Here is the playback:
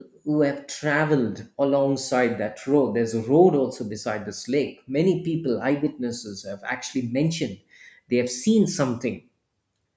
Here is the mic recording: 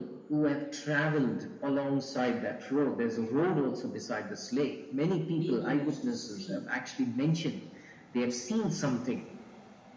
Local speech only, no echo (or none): People used to see